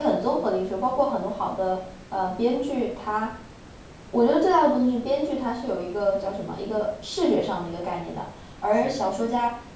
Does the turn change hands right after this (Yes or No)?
No